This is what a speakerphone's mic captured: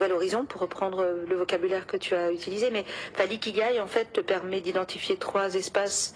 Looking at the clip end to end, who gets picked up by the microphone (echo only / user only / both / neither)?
echo only